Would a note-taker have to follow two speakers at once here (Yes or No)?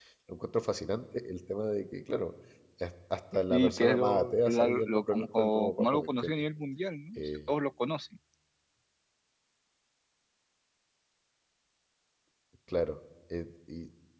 Yes